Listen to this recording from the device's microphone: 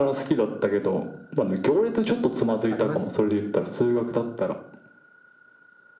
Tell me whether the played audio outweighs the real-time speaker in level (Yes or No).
Yes